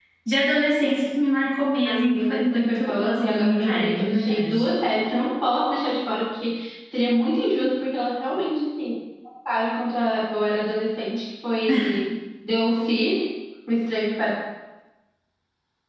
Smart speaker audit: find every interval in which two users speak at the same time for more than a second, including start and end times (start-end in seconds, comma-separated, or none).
1.8-4.7